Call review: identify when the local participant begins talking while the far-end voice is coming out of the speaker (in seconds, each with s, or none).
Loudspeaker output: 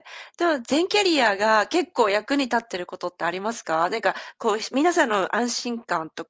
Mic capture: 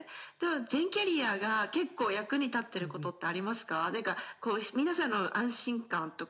2.8 s